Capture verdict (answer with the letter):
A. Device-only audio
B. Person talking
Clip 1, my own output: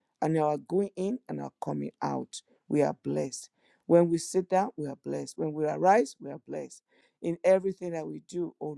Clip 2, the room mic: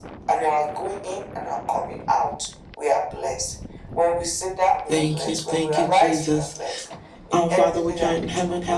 B